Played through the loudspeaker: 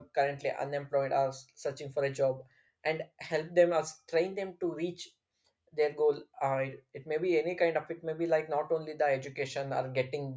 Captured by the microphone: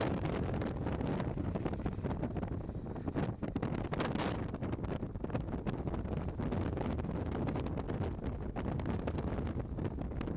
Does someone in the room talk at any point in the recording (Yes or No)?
No